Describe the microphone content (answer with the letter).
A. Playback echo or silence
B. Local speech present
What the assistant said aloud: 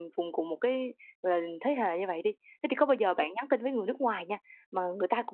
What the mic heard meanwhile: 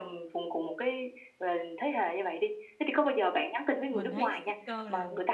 B